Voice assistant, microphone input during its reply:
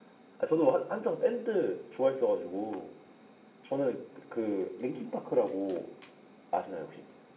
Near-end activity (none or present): present